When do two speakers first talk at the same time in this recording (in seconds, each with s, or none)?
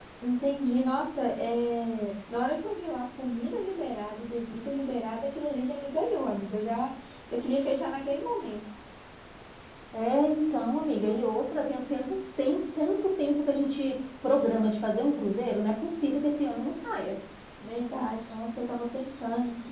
none